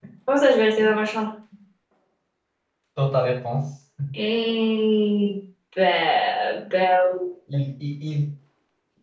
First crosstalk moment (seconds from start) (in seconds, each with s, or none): none